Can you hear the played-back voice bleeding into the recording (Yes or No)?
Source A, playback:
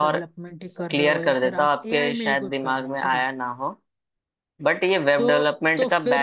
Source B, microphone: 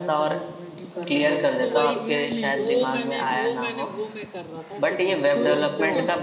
Yes